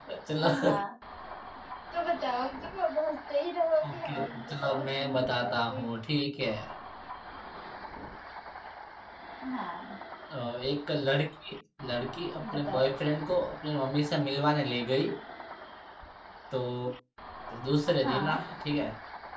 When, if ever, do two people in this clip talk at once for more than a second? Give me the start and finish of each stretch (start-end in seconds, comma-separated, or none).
3.9-5.8